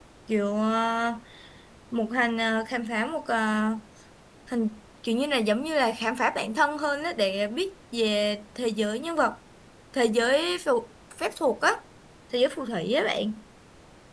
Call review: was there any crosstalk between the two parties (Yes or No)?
No